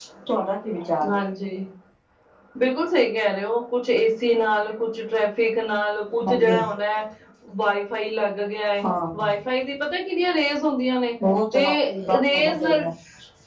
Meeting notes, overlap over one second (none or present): present